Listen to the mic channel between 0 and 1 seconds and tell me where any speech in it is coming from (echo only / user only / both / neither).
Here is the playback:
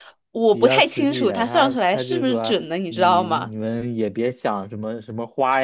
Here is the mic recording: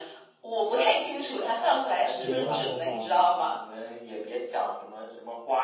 echo only